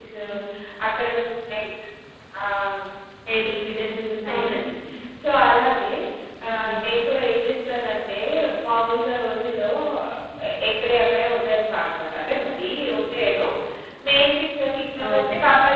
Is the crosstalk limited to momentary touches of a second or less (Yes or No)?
Yes